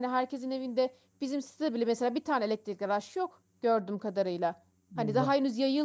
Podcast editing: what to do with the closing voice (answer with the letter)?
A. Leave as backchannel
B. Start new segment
A